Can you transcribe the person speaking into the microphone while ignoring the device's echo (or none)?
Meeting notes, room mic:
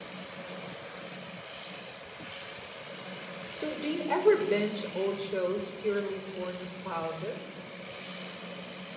So, do you ever binge old shows purely for nostalgia?